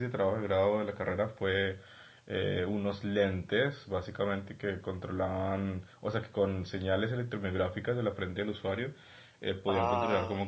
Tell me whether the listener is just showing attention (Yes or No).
Yes